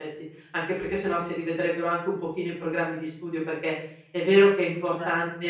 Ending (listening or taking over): listening